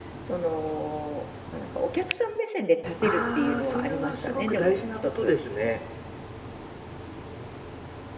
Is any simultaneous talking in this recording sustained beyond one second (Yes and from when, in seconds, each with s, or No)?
Yes, from 3.0 s